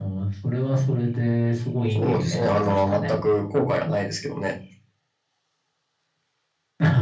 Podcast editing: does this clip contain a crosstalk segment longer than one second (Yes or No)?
Yes